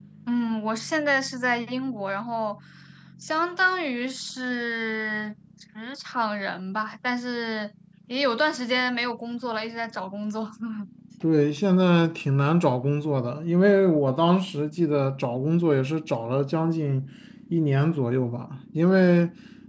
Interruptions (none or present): none